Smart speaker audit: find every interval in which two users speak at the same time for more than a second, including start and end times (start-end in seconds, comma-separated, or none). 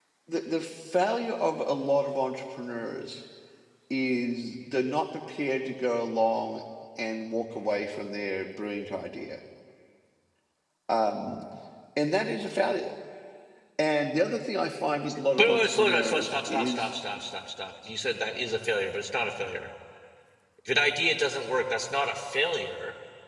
15.4-16.9